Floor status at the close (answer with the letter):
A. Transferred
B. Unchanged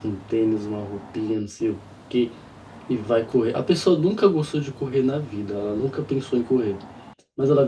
B